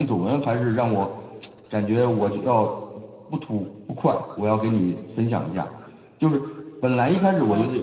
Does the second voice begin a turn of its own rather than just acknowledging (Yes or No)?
No